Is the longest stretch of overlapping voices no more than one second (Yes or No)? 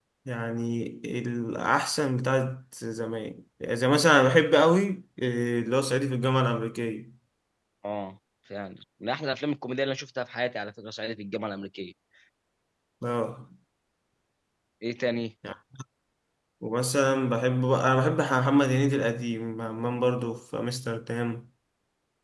Yes